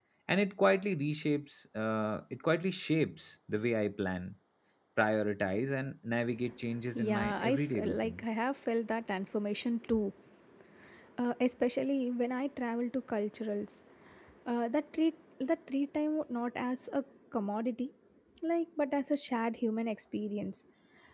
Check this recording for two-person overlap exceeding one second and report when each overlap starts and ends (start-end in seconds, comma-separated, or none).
7.0-8.2